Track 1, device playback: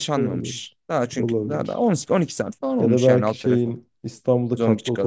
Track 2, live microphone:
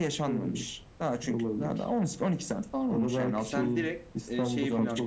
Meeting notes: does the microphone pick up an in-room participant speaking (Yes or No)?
Yes